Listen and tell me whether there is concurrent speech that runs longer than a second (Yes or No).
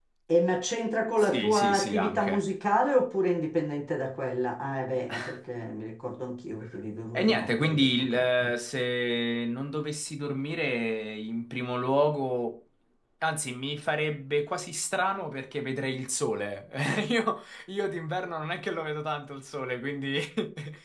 Yes